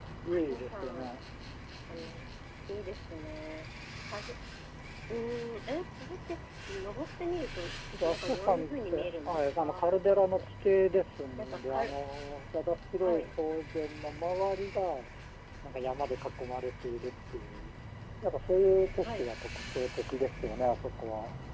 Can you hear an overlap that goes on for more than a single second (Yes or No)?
Yes